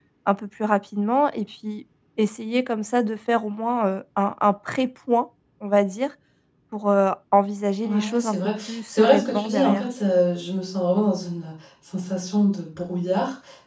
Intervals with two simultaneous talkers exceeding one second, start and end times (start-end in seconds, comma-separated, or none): 7.8-9.8